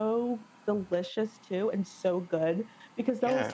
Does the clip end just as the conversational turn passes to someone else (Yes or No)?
No